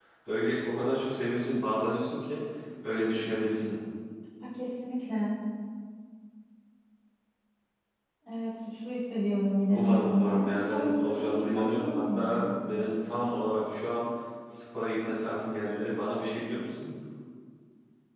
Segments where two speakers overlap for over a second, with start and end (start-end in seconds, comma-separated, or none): 9.7-12.5